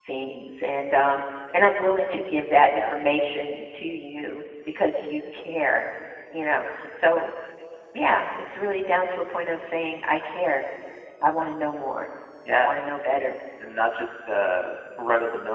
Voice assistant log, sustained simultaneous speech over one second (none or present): none